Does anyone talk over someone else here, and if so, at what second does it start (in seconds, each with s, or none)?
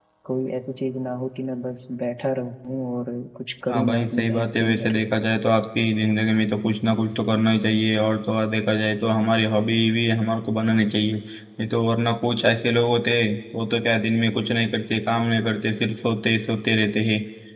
3.7 s